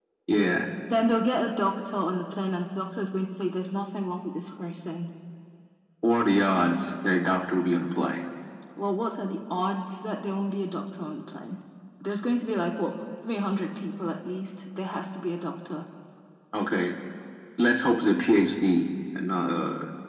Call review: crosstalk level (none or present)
none